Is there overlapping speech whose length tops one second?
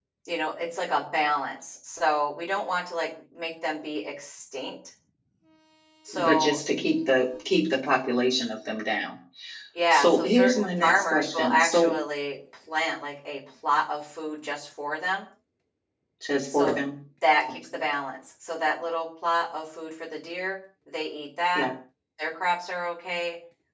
Yes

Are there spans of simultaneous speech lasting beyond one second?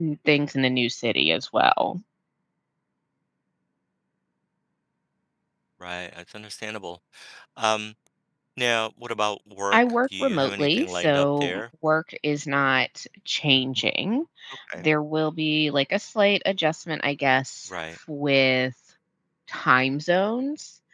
Yes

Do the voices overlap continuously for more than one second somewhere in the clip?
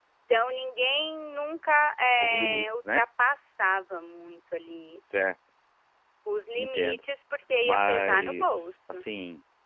Yes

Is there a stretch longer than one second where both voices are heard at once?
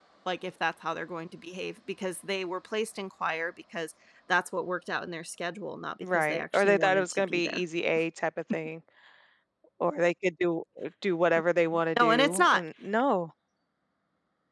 Yes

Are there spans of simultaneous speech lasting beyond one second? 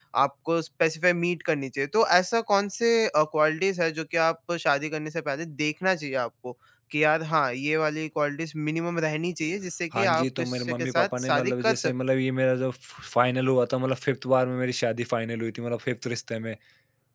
Yes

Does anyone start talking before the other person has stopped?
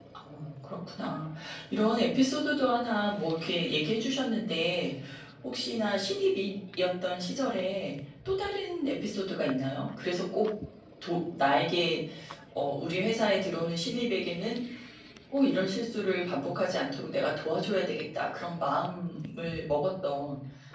No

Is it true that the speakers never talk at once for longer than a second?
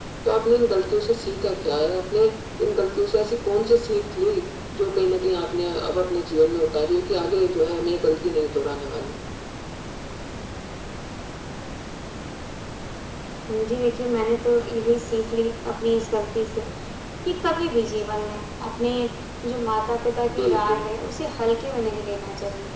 Yes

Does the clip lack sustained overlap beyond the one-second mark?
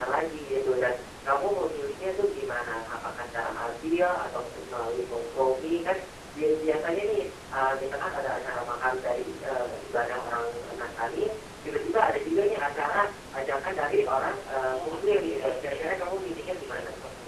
No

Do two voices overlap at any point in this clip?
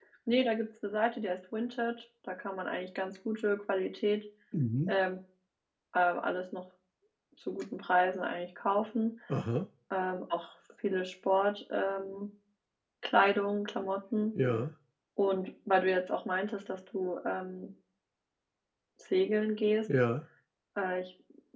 No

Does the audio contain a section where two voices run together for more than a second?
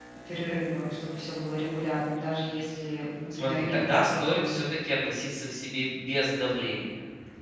Yes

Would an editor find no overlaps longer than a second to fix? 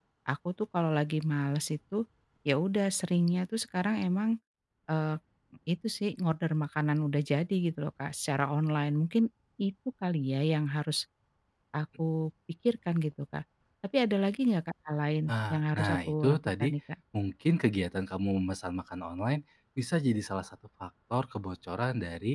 No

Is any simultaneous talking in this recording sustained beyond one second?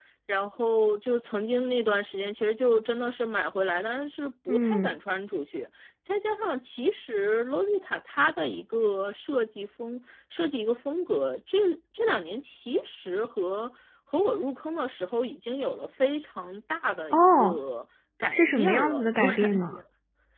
Yes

